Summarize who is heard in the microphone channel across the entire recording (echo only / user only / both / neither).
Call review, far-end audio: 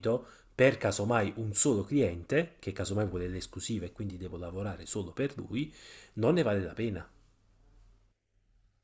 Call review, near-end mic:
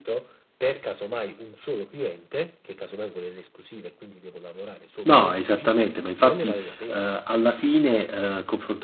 both